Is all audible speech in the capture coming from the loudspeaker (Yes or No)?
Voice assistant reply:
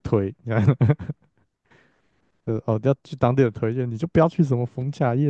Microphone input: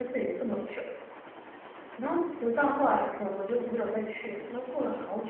No